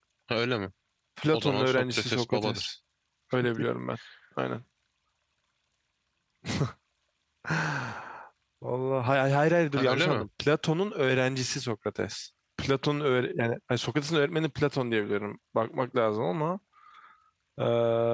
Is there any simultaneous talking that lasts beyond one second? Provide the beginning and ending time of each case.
1.3-2.7

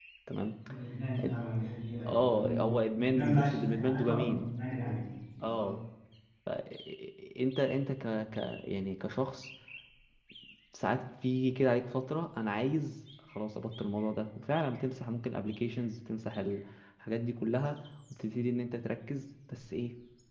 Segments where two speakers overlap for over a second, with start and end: 2.1-4.5

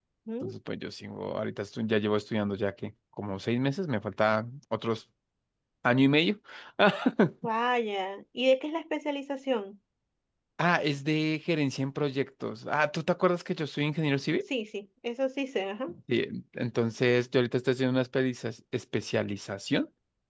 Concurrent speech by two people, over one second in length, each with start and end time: none

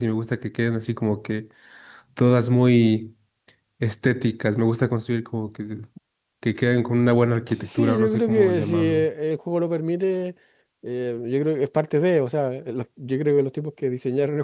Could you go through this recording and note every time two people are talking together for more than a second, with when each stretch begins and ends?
7.5-9.1

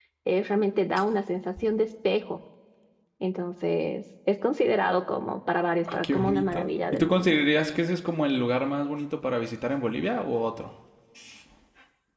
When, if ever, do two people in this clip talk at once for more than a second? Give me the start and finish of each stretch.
6.0-7.4

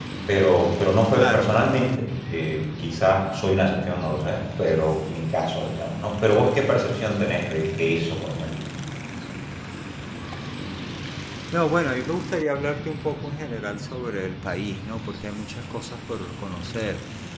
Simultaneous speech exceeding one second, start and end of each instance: none

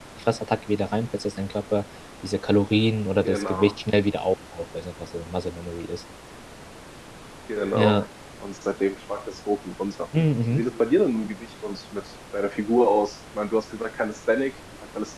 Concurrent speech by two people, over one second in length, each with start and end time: none

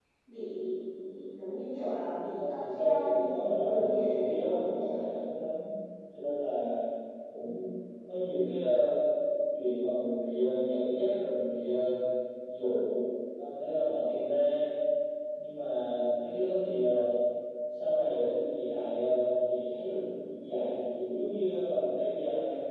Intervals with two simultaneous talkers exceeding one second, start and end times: 2.4-4.9

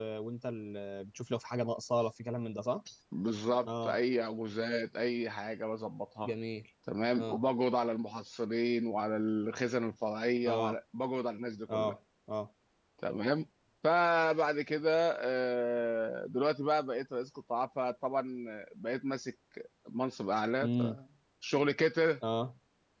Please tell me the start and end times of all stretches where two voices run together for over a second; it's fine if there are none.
none

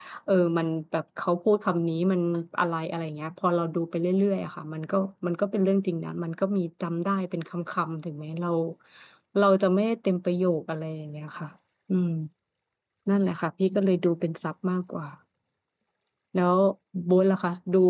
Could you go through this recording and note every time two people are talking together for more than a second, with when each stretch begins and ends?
none

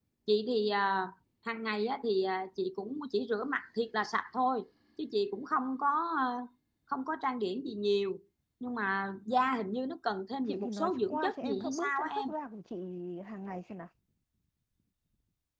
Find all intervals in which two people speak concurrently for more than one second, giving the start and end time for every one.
10.5-12.3

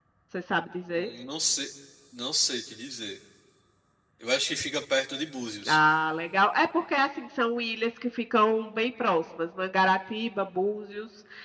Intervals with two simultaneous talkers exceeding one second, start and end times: none

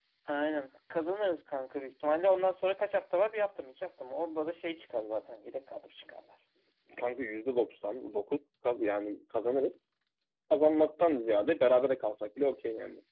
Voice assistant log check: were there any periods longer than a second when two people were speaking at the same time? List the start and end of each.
none

